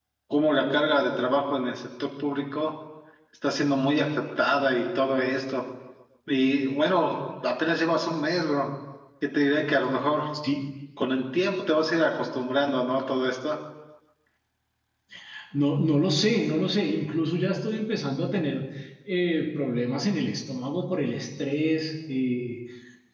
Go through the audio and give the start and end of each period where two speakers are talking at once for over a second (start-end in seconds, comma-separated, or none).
none